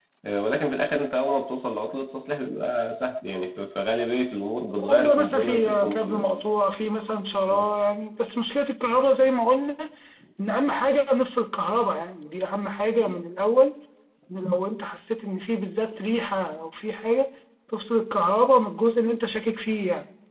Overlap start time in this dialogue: 4.8 s

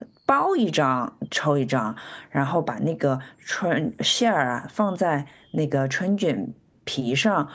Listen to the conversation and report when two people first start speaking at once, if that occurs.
none

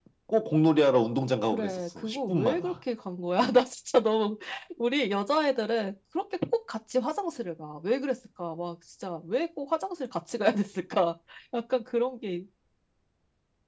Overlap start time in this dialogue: 1.5 s

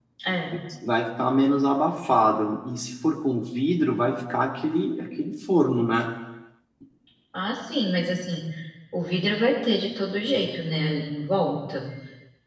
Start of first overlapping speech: none

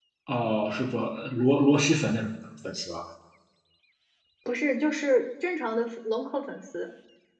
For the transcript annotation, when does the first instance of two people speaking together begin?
none

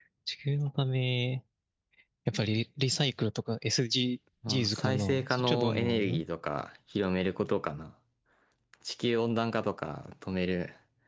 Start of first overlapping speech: 4.4 s

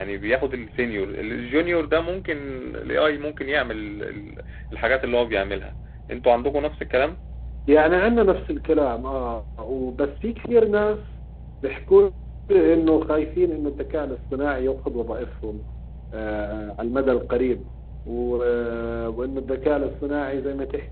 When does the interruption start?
none

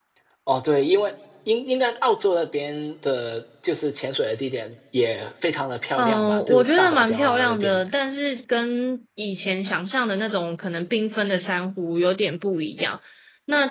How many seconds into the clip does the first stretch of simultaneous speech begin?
6.0 s

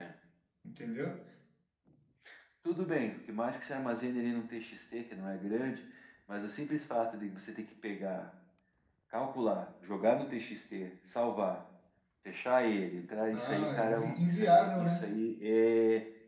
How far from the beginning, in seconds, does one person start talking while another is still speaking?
13.3 s

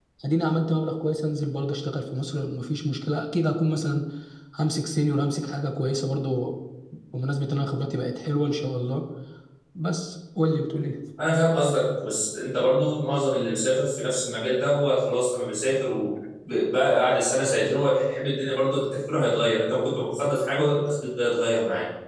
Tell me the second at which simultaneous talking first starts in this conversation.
none

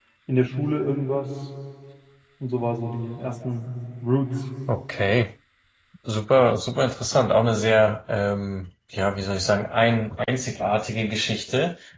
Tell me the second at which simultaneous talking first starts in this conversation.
none

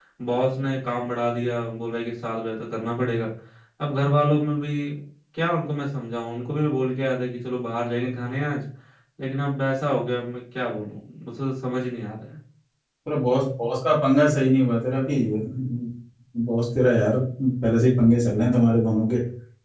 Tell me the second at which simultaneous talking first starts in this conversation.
none

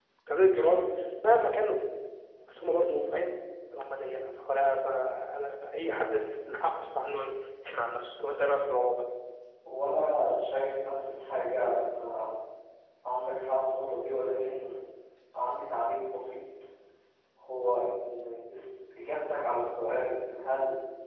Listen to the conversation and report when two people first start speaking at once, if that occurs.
none

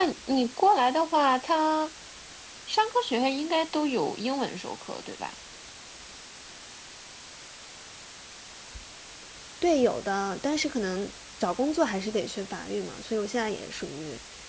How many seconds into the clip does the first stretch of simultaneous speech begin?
none

